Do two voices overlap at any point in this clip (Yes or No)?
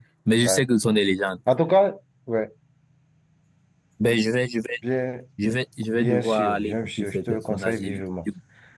Yes